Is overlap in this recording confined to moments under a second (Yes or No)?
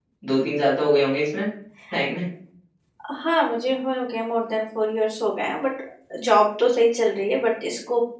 Yes